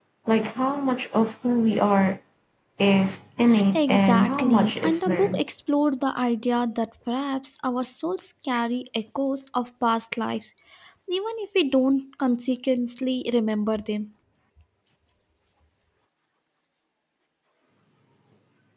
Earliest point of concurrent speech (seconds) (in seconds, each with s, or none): 3.5 s